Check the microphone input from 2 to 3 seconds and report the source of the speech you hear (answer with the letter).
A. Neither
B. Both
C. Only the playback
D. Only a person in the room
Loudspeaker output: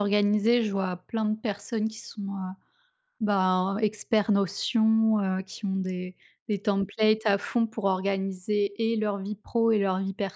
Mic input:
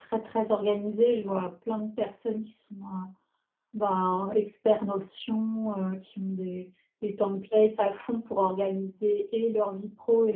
C